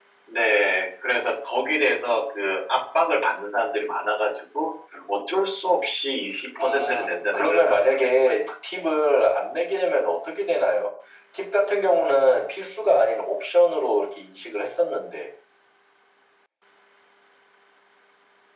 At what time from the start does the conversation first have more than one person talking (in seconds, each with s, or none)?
6.6 s